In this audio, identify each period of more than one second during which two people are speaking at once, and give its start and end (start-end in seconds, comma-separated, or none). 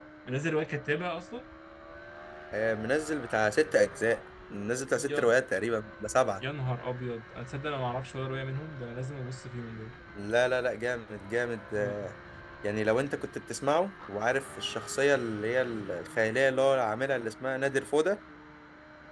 none